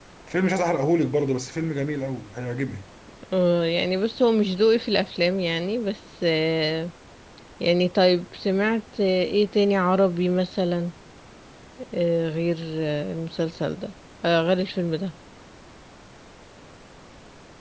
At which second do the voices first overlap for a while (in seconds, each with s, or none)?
none